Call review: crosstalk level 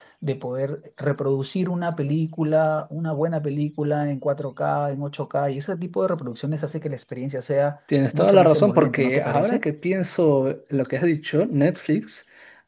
present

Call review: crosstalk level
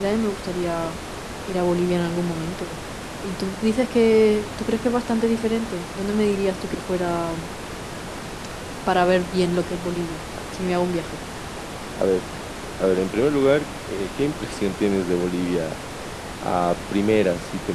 none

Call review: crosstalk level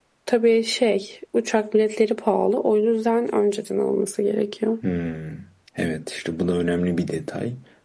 none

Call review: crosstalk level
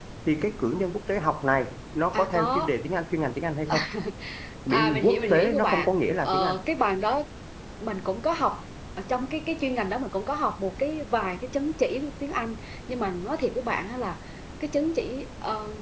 present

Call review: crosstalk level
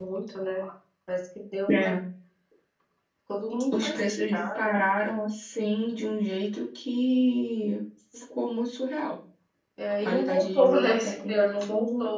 present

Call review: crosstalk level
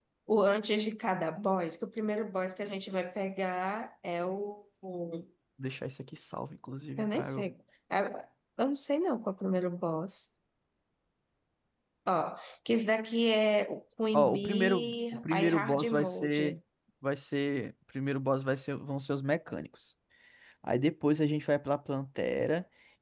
present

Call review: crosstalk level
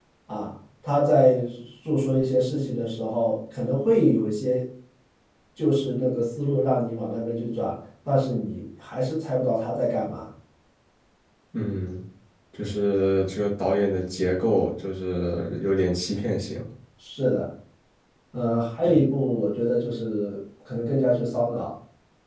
none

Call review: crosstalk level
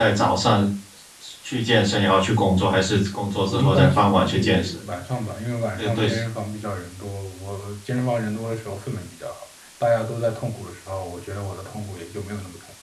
present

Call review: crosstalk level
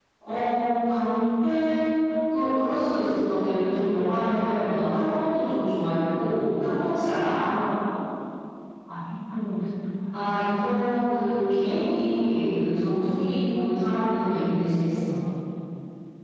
none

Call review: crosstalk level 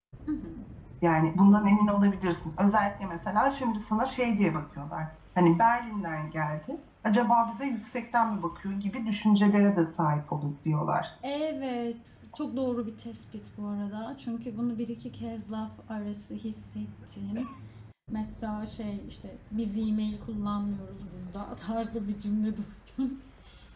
none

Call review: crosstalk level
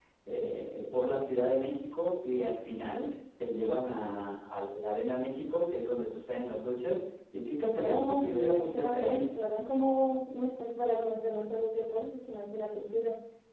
present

